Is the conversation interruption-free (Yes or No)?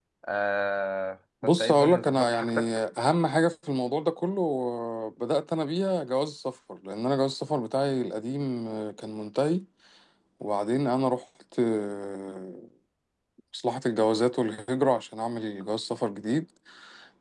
No